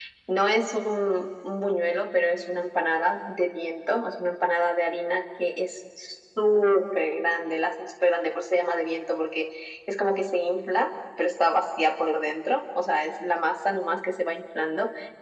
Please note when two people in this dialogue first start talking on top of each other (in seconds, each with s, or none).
none